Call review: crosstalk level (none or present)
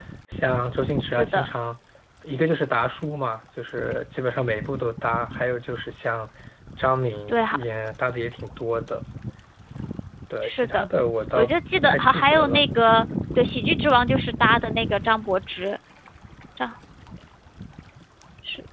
present